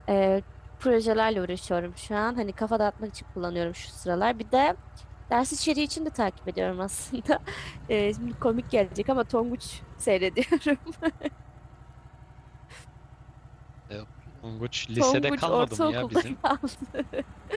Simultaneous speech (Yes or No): Yes